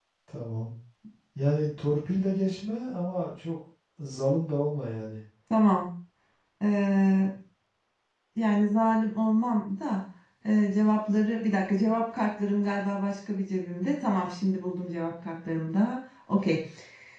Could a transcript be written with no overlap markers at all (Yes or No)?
Yes